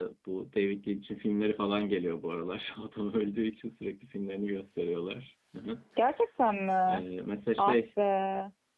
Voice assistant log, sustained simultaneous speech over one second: none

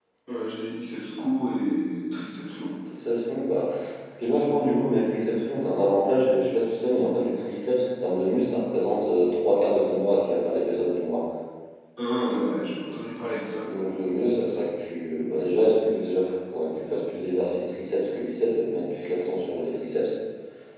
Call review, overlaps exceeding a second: none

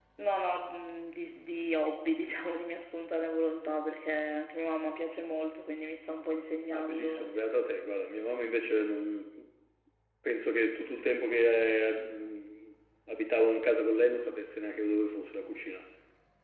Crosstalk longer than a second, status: none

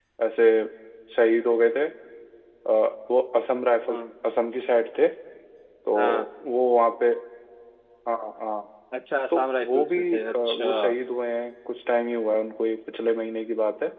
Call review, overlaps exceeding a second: present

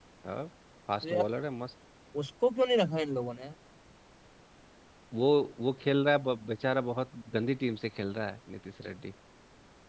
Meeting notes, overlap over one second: none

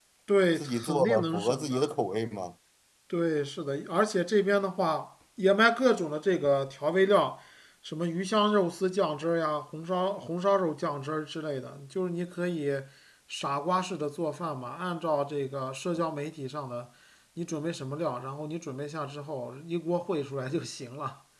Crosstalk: present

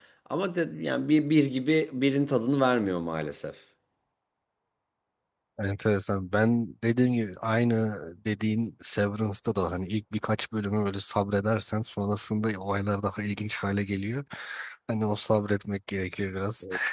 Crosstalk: none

